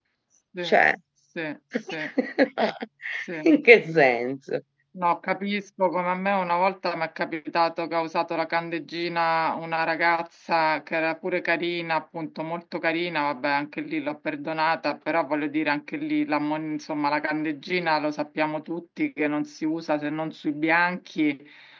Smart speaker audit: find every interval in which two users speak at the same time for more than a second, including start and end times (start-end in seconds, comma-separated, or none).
none